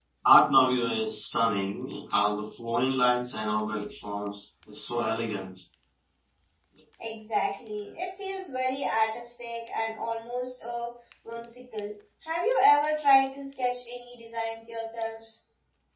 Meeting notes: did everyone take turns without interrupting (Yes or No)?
Yes